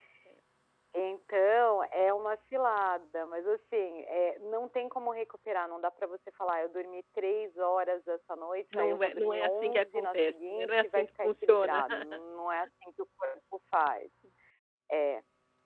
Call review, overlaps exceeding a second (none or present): present